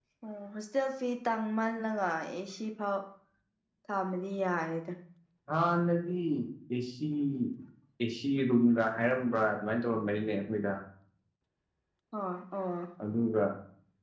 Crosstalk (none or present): none